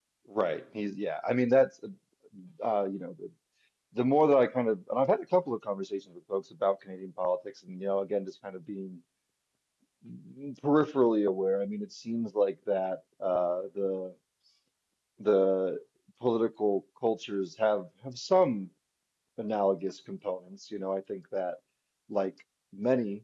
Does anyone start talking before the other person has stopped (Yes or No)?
No